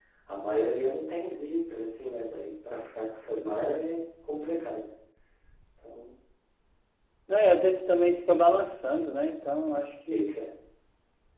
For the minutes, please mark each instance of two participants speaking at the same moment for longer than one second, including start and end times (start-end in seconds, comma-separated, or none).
none